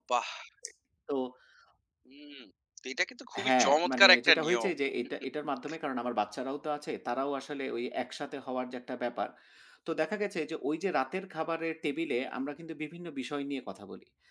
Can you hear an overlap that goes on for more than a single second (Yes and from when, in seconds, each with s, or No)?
Yes, from 3.5 s